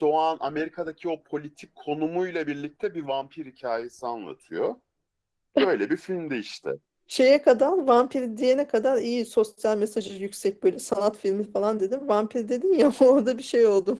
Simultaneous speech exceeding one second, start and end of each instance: none

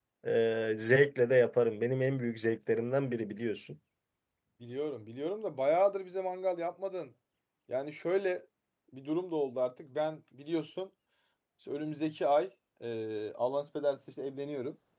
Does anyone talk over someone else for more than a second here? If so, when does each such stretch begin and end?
none

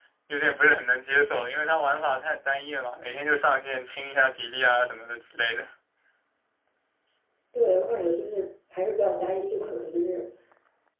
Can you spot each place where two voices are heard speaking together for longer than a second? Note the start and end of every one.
none

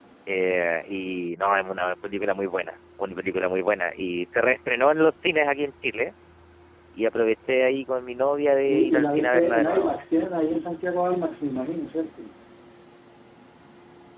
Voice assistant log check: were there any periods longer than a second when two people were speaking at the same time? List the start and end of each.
8.7-9.9

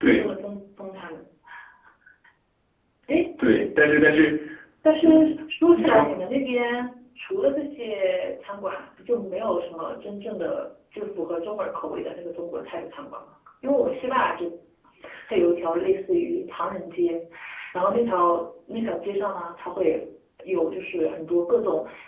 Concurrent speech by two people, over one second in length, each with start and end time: none

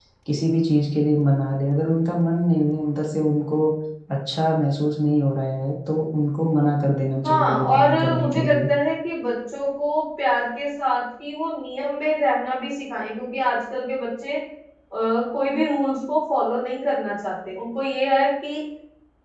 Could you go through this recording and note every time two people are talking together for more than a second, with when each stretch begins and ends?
7.2-8.6

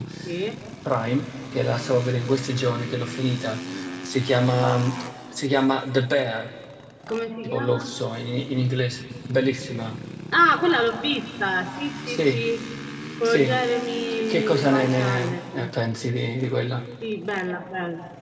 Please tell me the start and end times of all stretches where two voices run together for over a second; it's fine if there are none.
14.1-15.7

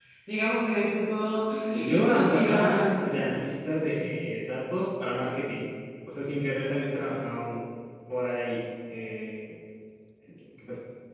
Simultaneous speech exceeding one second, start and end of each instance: 1.8-3.3

